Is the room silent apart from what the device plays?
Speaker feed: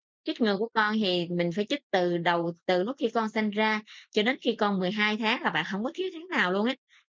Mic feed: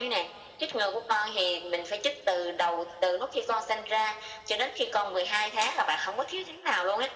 Yes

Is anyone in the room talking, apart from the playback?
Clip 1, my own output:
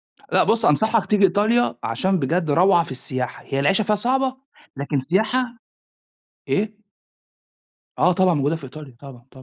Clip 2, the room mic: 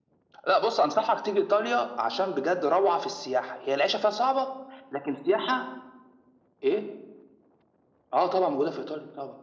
No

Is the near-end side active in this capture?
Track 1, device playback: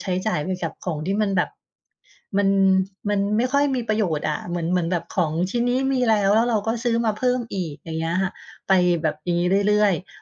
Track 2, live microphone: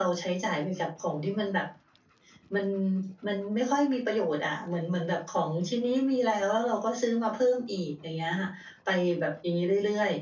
No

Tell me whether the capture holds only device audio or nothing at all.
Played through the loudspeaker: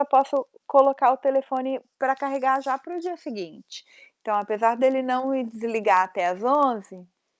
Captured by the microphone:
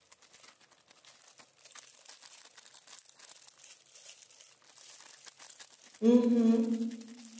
No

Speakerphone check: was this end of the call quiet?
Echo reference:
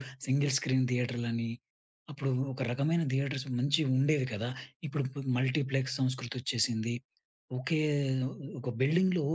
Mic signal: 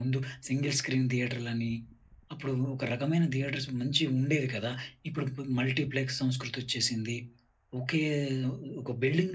Yes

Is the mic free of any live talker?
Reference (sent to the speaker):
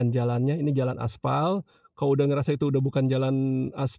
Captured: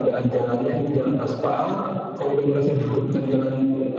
No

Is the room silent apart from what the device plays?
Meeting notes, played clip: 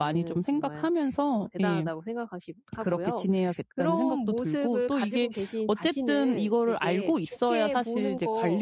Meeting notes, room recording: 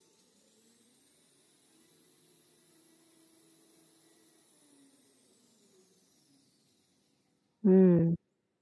No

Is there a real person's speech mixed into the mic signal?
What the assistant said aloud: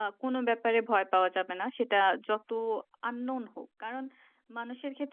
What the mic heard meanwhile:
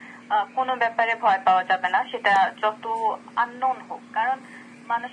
No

